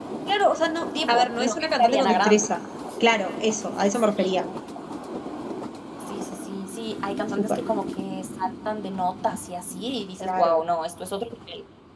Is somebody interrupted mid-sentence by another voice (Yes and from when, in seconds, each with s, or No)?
Yes, from 1.1 s